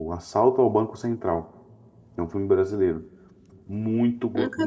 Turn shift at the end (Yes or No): No